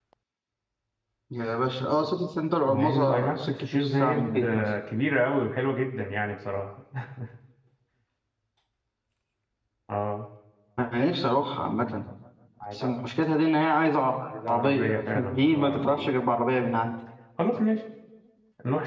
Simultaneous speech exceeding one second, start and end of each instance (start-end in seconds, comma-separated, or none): 2.7-4.7, 14.5-16.1